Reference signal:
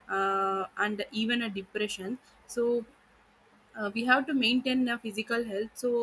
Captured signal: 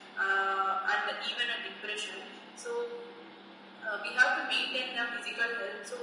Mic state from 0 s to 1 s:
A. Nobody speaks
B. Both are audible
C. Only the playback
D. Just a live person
C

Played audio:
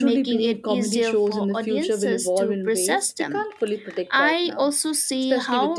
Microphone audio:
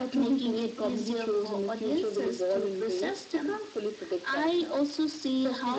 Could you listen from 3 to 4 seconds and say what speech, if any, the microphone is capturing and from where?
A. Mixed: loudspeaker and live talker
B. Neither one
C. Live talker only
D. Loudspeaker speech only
D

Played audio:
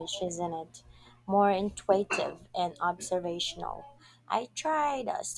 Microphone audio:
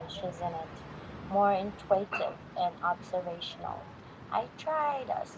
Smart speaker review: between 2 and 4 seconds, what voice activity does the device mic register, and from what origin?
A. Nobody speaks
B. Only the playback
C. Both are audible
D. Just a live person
B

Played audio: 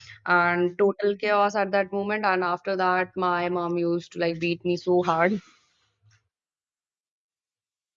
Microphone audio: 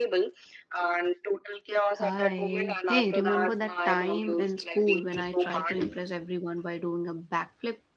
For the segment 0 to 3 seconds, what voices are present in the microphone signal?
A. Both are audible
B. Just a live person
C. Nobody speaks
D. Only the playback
A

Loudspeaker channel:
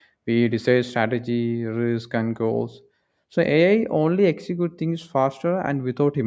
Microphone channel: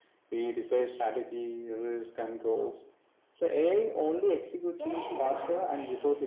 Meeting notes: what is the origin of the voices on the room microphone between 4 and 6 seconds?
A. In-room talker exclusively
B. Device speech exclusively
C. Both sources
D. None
C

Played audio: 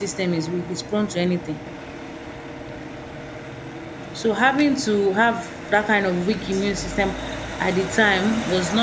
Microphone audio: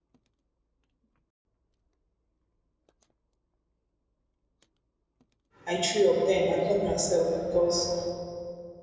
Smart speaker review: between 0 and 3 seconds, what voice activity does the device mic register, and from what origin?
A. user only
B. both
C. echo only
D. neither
D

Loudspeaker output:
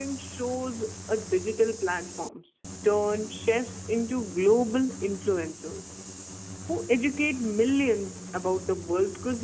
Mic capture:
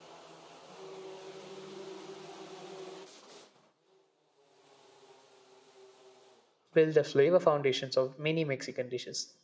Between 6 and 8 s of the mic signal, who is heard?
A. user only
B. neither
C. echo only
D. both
A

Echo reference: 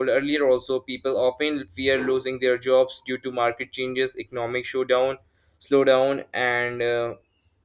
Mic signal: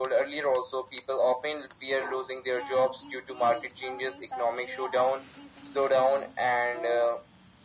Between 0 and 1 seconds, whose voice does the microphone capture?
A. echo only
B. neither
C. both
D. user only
A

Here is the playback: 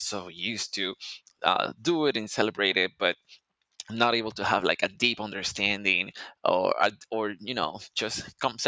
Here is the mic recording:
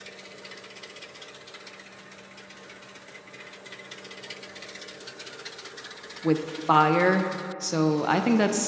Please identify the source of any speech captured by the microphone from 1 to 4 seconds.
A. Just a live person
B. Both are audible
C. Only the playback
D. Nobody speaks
D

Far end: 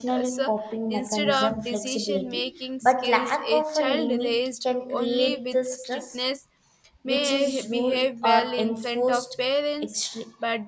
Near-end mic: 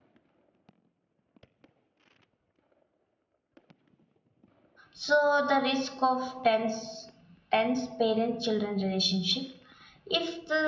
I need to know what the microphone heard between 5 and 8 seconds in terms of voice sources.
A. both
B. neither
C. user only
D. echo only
C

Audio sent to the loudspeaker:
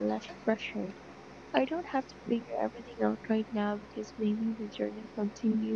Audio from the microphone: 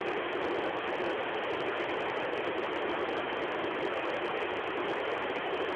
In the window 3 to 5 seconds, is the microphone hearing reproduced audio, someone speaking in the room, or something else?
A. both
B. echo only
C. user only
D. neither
D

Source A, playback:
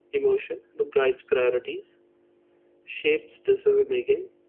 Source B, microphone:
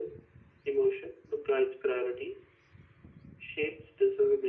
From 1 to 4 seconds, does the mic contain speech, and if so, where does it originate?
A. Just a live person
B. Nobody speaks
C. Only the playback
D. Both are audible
C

